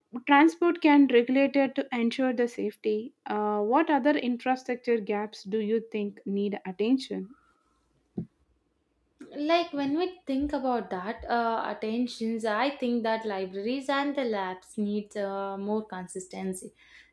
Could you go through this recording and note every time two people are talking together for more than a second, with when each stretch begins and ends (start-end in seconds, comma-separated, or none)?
none